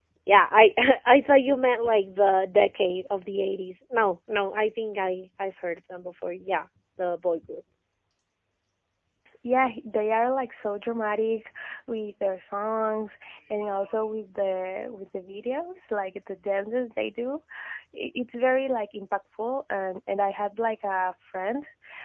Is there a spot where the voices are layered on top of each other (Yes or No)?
No